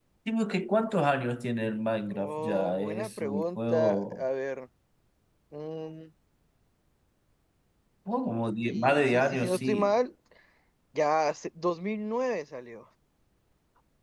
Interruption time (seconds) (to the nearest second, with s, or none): 2 s